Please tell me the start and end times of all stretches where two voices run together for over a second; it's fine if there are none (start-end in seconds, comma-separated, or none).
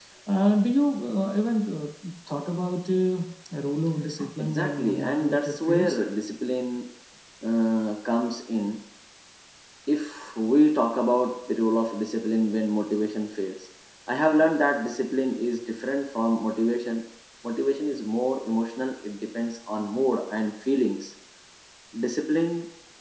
4.4-6.0